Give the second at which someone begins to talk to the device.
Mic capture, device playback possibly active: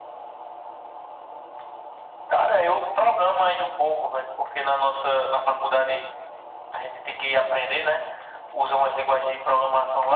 none

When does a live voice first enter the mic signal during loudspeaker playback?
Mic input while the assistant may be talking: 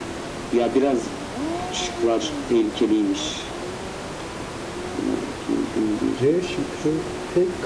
6.1 s

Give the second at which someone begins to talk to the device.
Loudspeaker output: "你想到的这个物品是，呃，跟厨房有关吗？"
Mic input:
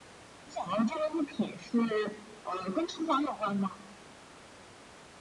none

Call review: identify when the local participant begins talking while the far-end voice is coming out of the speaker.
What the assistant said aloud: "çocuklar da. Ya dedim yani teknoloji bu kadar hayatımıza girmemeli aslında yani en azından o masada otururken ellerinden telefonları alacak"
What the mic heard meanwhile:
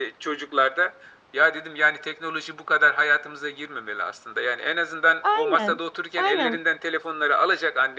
5.2 s

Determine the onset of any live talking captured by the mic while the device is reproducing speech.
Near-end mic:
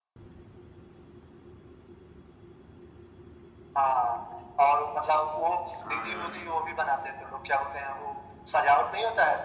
5.8 s

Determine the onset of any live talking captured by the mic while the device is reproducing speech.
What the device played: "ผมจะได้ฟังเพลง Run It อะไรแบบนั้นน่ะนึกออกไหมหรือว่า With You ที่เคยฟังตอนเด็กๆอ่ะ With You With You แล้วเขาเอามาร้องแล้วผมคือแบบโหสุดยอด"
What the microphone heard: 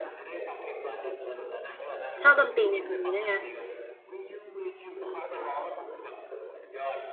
2.2 s

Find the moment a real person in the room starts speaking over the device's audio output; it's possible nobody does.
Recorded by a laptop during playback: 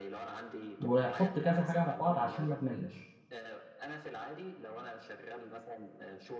0.8 s

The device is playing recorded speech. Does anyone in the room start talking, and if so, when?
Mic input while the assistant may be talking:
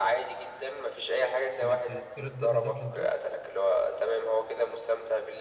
1.6 s

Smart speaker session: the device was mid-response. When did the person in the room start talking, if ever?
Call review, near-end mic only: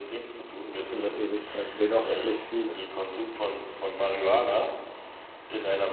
0.8 s

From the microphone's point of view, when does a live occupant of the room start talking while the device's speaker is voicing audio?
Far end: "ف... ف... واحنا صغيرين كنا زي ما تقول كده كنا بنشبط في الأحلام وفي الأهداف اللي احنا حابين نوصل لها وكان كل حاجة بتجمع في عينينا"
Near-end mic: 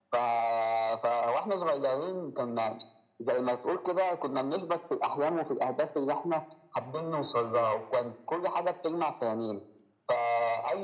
none

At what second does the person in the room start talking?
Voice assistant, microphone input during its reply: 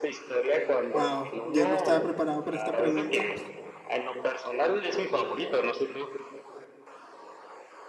0.9 s

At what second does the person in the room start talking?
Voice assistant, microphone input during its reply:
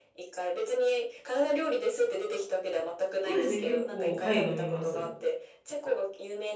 3.2 s

